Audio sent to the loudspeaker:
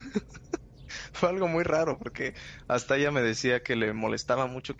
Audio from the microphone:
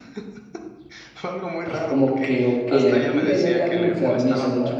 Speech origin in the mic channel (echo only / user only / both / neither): both